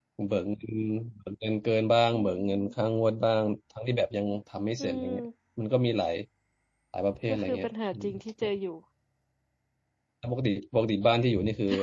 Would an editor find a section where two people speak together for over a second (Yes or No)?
Yes